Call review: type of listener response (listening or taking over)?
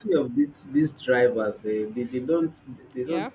listening